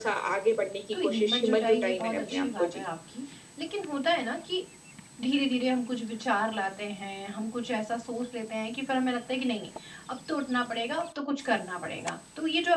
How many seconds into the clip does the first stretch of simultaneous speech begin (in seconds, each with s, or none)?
1.0 s